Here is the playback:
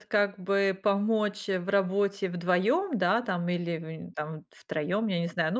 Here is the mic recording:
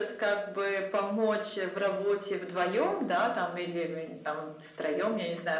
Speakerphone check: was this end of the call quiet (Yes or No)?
Yes